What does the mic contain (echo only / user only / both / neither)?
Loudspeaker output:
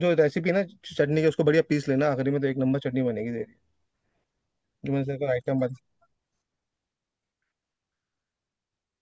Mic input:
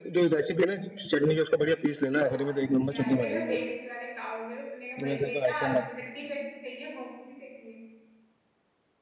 both